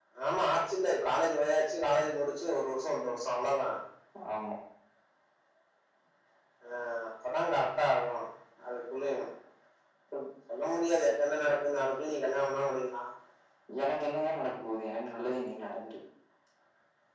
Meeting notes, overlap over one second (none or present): none